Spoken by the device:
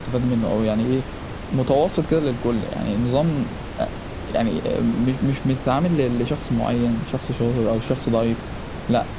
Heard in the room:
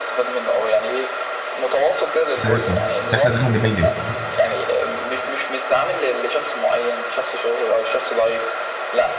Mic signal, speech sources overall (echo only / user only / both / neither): both